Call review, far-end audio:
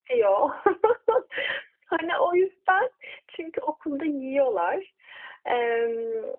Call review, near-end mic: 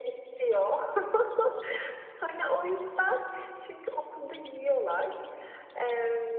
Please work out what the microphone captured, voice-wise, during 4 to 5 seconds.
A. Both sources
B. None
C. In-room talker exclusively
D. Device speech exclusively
D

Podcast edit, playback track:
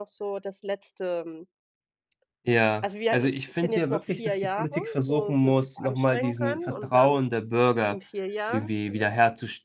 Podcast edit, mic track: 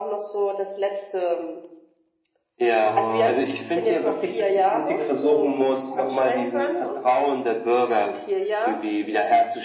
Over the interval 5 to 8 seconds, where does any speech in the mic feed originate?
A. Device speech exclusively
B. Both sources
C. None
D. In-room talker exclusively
A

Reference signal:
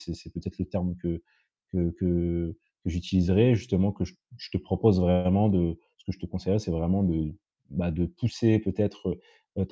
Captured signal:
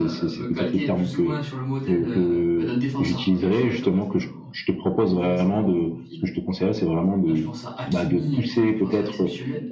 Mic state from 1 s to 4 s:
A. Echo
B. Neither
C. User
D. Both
D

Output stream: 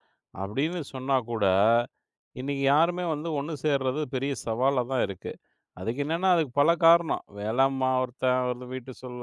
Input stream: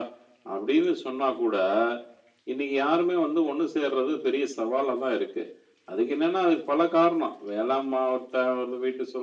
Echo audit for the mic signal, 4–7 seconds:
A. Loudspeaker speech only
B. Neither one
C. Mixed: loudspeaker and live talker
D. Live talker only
A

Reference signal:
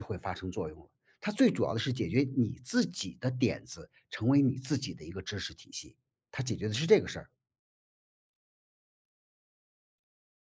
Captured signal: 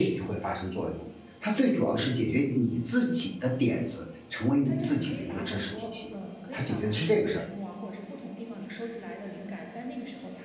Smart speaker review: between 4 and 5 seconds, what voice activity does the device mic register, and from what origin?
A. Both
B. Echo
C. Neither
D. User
A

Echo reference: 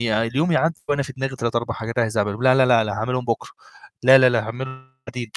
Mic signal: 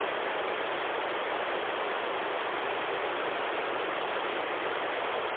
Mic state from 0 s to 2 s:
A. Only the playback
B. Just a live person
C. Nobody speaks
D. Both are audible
C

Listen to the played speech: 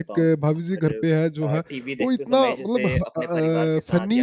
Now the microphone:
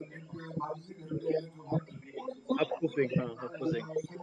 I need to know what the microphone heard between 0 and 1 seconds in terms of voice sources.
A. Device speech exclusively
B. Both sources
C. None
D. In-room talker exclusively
A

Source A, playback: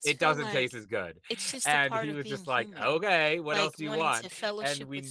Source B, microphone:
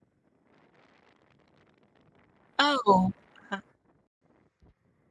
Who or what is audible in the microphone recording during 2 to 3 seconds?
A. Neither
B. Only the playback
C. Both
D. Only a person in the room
D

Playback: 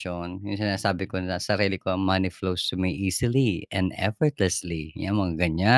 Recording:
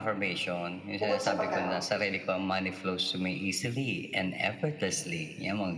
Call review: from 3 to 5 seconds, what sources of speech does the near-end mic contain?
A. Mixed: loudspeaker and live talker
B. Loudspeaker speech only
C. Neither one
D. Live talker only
B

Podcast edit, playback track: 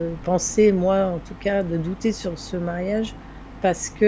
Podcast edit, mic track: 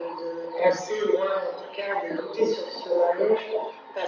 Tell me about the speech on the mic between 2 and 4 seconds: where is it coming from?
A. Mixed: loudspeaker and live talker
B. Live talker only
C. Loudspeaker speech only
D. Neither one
C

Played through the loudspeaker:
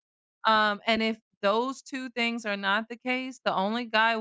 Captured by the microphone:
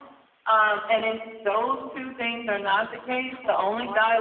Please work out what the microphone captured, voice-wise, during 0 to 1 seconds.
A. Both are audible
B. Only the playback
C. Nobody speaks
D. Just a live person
B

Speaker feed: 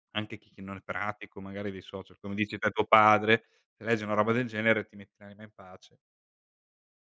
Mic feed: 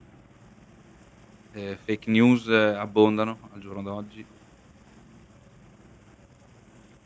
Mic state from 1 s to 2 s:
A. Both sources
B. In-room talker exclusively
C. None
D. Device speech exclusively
B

